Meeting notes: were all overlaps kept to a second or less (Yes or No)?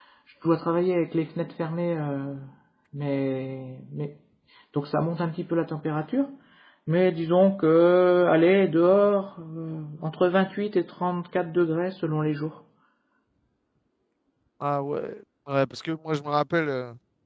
Yes